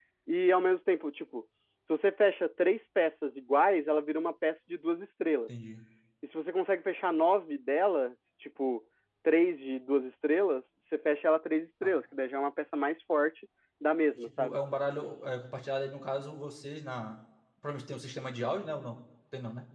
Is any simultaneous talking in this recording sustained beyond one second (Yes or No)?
No